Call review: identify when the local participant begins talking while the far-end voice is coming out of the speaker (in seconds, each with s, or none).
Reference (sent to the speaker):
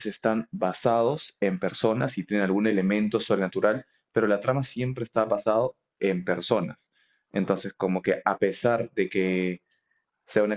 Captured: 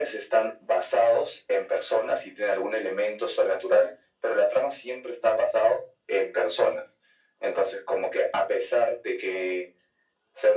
none